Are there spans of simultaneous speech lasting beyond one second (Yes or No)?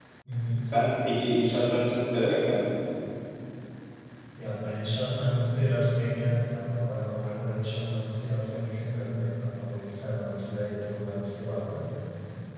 No